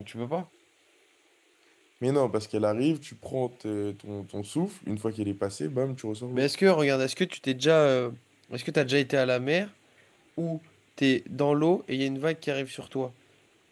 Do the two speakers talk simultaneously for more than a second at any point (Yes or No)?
No